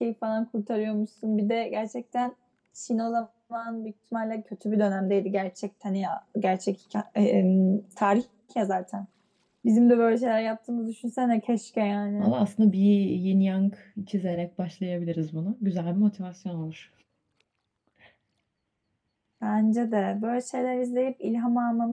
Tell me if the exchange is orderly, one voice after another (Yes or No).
Yes